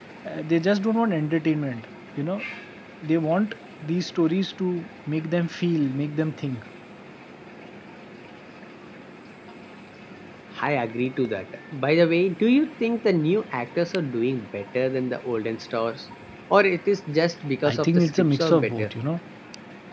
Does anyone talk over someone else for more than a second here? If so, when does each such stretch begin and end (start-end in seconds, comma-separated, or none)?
17.7-18.9